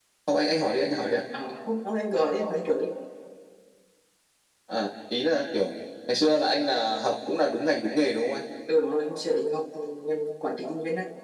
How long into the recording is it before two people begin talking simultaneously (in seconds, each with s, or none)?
none